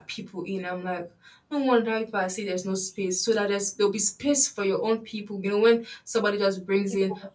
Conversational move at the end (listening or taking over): listening